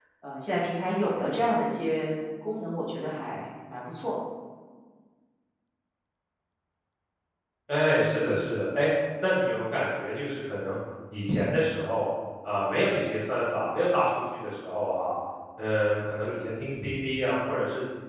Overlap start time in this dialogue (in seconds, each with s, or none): none